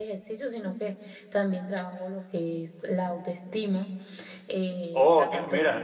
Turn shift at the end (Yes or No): Yes